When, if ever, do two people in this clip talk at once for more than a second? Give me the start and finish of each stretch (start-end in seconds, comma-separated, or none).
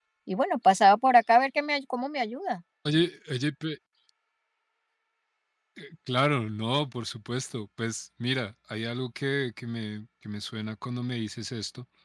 none